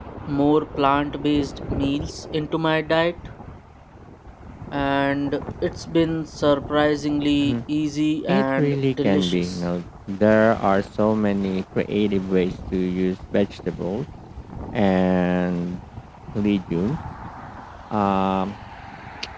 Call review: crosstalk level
present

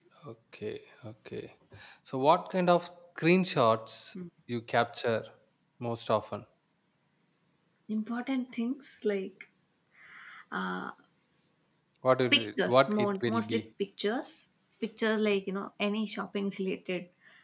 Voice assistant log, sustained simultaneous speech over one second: present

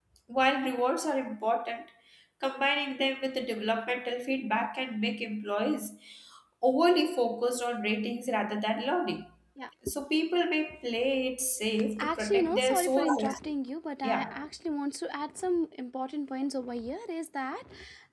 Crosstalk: present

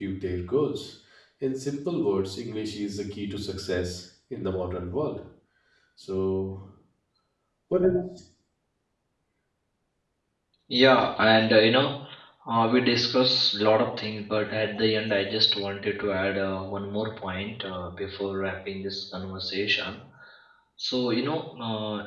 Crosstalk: none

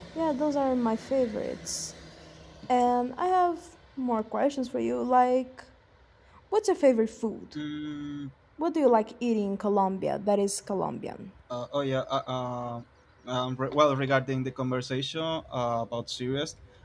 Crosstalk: none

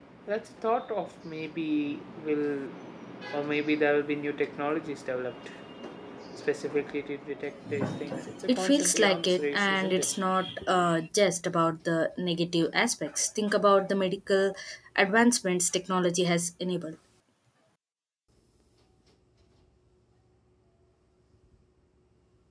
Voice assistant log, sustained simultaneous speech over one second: present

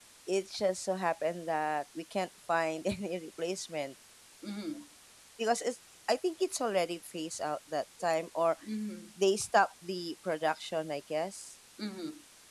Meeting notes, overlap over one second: none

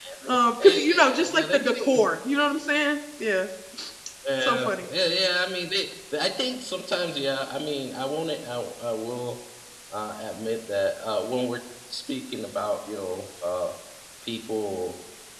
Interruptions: present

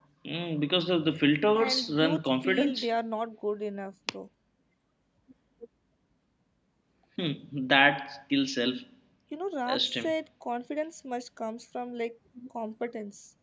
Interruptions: present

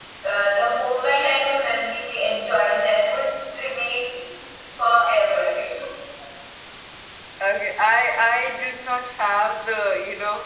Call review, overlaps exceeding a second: none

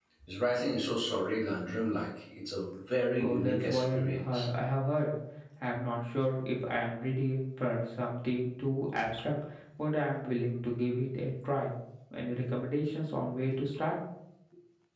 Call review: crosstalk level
present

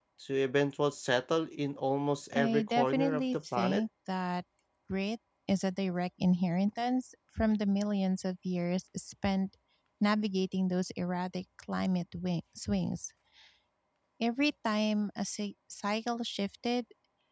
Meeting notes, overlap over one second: present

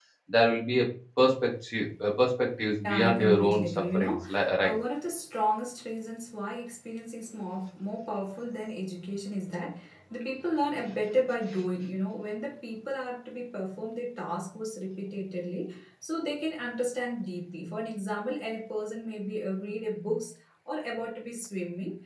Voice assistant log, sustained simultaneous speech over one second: present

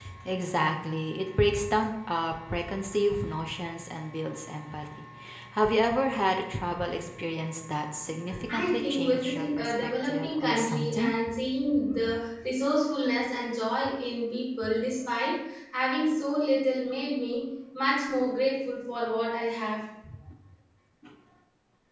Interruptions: present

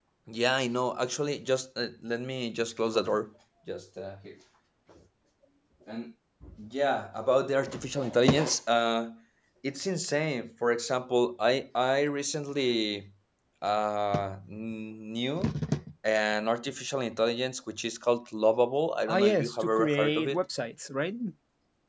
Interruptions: present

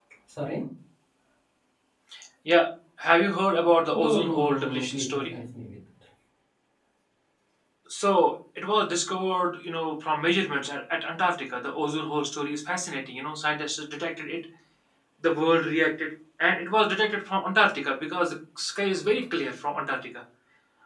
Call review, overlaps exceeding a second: present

